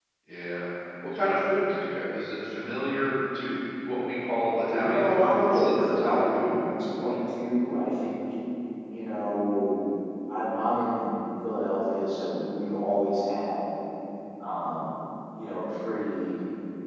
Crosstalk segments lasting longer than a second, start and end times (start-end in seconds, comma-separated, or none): 4.6-6.5